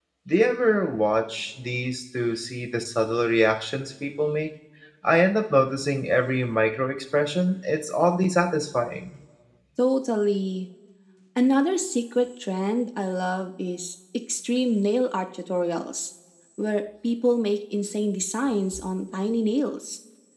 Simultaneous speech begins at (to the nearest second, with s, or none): none